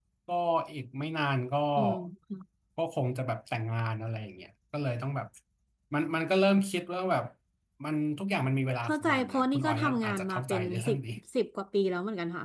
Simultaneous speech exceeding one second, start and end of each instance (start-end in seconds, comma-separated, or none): 8.8-11.0